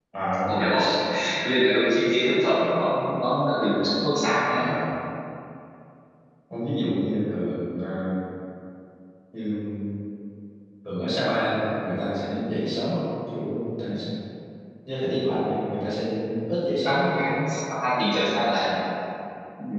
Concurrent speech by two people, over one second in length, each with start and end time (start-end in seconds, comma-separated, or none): none